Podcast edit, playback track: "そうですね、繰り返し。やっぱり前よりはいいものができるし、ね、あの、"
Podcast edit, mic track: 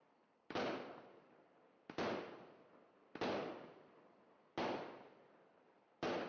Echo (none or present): none